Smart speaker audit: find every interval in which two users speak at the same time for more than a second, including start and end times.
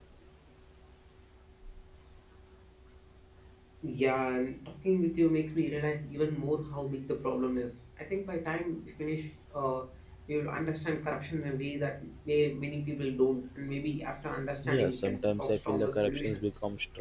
14.6-16.4

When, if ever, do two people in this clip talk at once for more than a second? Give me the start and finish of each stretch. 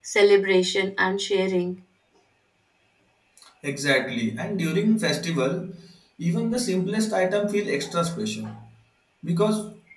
none

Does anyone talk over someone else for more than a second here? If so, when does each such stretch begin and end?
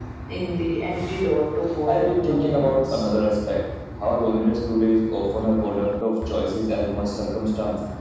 1.9-3.1

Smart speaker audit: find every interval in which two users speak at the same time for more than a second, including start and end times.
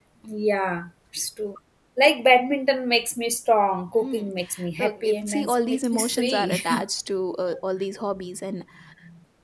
4.8-6.6

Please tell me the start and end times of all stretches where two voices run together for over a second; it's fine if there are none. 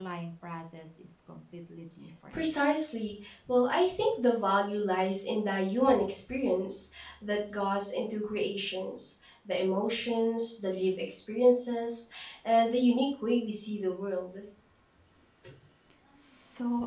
none

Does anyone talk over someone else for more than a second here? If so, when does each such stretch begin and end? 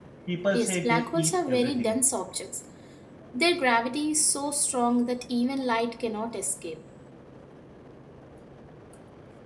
0.5-2.0

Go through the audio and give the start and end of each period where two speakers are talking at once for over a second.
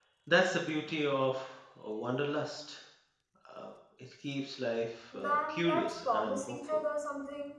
5.1-6.6

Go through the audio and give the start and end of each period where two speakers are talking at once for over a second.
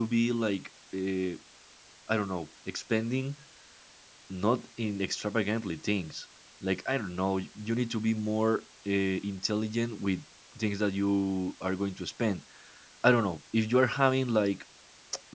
none

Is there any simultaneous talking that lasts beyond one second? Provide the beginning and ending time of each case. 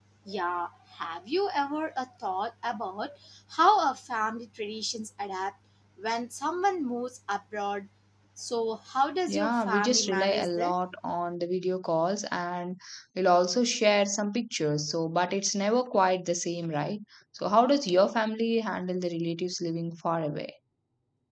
9.3-10.7

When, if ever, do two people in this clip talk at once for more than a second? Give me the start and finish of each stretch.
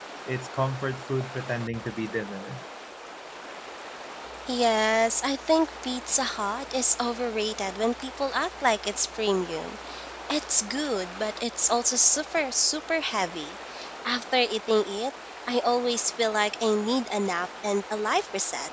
none

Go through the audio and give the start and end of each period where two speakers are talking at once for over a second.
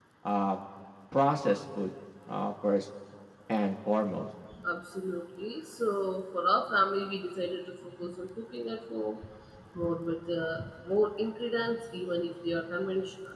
none

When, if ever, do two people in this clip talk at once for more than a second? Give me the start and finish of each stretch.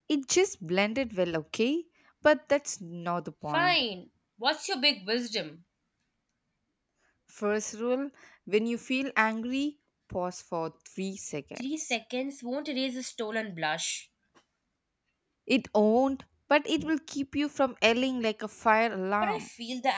none

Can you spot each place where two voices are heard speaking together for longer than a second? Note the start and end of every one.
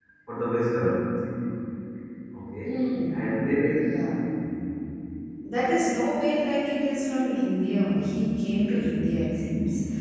none

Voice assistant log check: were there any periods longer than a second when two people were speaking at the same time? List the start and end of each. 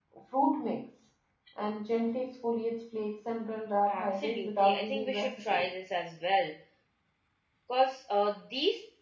3.9-5.7

